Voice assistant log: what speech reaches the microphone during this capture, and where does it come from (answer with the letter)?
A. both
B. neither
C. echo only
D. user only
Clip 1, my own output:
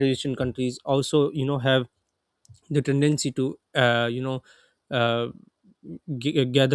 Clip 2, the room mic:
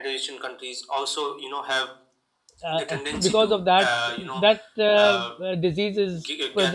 A